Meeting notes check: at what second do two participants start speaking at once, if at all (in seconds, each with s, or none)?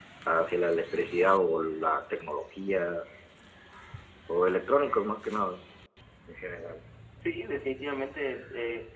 none